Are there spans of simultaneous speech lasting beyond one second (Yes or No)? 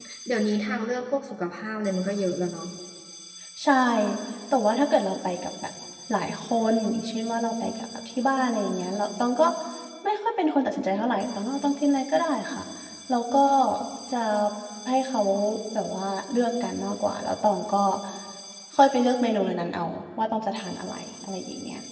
No